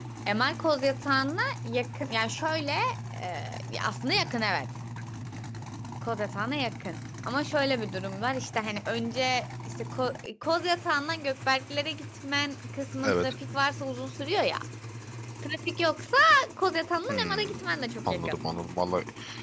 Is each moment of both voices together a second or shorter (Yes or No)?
Yes